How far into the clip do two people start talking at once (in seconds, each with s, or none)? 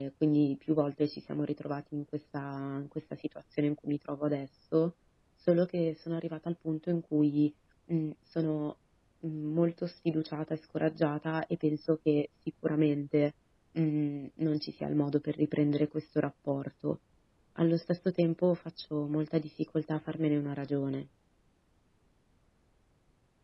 none